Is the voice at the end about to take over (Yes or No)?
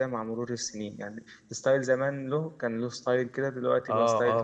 Yes